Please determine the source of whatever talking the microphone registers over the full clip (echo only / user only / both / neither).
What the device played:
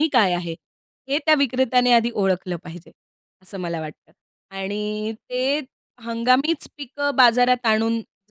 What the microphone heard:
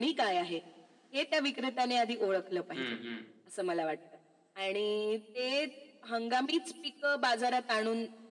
both